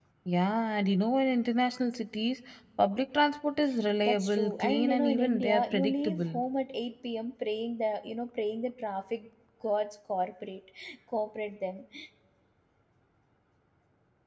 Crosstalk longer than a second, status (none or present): present